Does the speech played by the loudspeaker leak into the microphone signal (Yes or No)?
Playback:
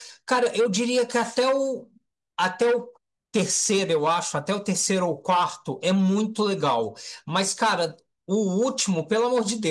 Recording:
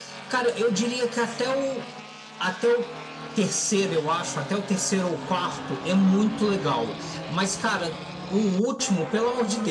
Yes